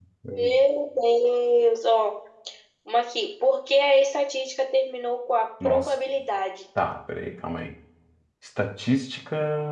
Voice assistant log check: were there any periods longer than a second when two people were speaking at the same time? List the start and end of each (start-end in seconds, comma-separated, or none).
none